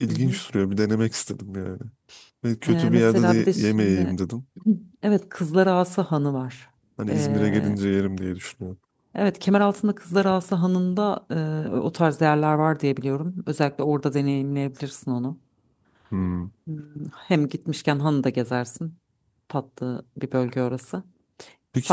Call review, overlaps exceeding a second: present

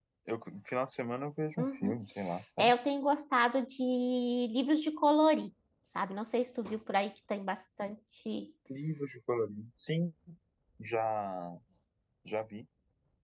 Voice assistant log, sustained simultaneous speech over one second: none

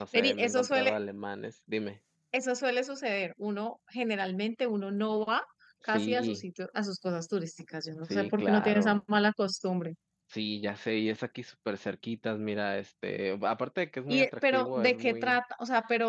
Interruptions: present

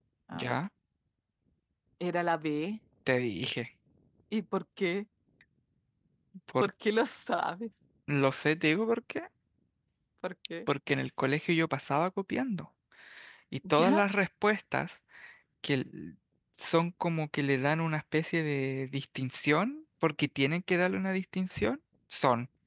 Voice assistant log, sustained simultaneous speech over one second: none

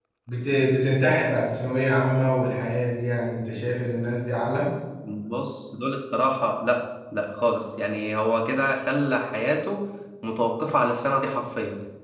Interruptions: none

